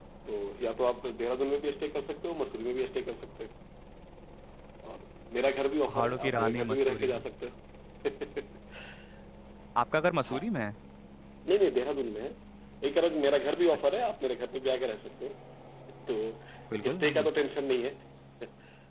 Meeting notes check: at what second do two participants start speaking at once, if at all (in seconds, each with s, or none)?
5.8 s